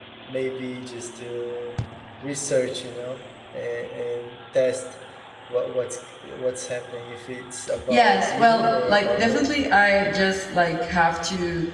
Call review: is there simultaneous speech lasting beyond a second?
Yes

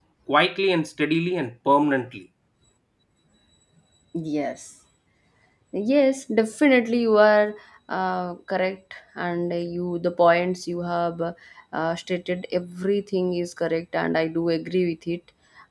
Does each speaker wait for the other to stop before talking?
Yes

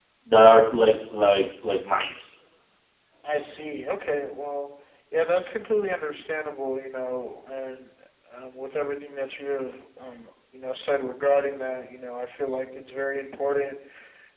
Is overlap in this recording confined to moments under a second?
Yes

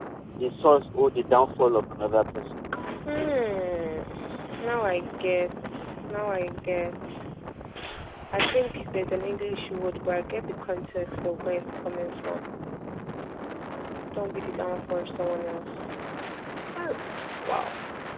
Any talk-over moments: No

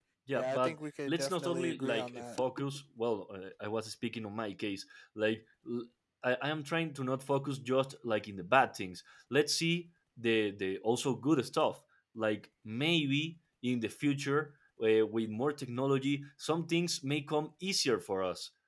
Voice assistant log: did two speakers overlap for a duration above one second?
Yes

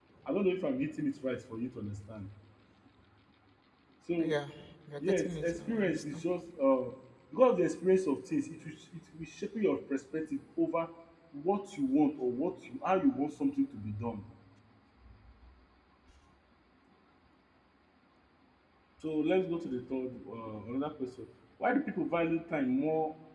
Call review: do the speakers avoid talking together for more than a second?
No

